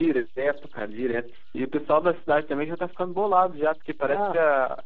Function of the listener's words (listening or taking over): listening